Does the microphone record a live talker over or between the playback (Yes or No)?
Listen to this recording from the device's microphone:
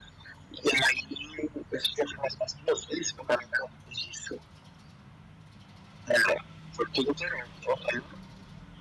No